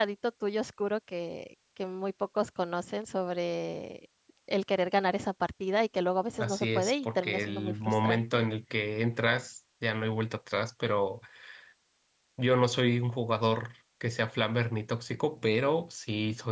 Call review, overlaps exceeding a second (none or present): present